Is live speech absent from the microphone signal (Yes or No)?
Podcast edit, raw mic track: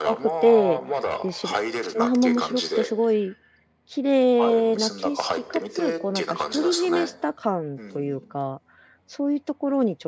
No